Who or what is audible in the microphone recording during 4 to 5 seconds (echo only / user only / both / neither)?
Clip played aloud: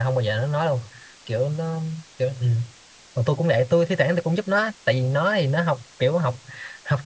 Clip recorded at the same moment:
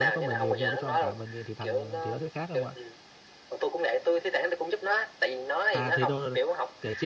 echo only